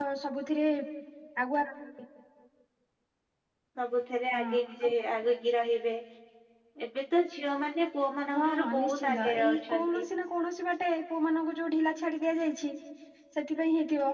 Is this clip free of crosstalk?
No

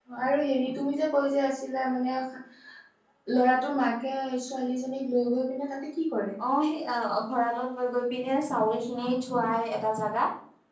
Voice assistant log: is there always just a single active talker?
Yes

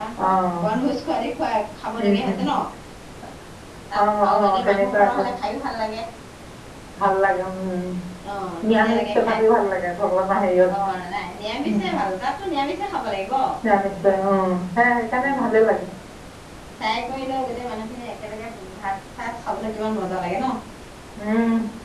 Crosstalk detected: Yes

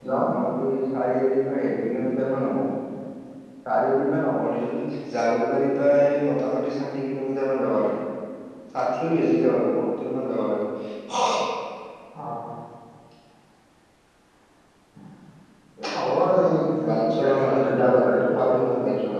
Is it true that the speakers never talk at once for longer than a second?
No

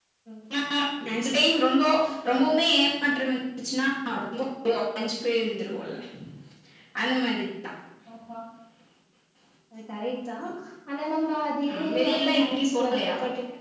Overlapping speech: Yes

